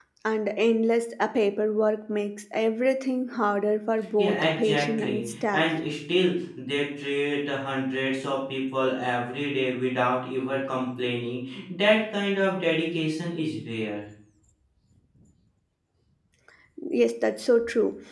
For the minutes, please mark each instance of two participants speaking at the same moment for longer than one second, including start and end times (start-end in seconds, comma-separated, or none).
4.2-5.6